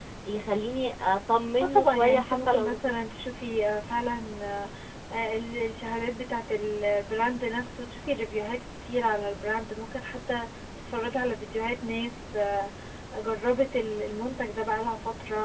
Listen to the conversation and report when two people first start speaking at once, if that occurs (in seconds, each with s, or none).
1.6 s